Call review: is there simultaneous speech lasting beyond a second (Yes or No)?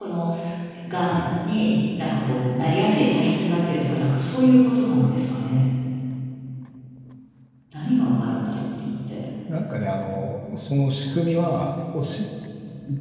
No